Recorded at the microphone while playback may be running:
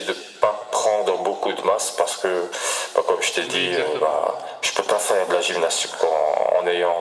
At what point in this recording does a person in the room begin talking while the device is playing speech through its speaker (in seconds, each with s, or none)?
3.4 s